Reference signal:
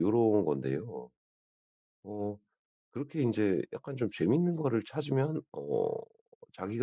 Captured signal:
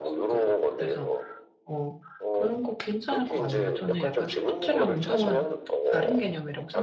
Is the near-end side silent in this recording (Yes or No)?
No